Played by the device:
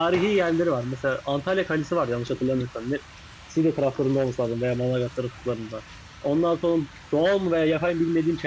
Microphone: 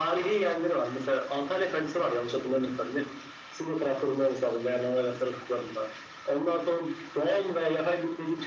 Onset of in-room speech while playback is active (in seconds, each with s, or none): none